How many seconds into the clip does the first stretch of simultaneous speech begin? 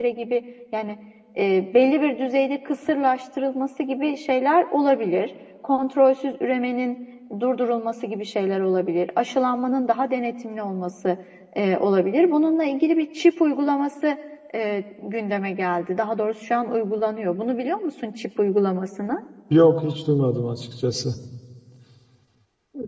none

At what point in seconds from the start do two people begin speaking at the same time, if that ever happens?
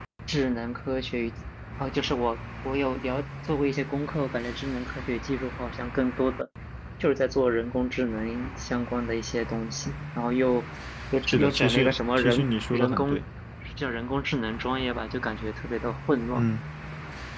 11.3 s

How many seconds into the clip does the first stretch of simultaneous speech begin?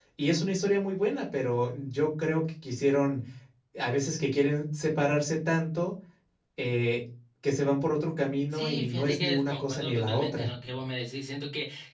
8.5 s

